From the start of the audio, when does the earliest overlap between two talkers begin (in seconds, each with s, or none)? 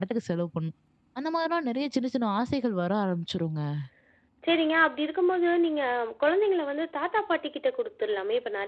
none